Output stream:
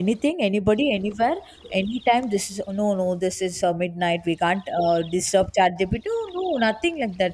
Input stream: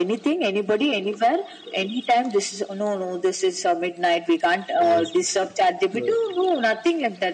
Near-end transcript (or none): Yes. So